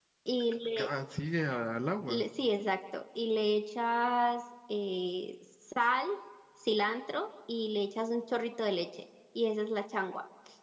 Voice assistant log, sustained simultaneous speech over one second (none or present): none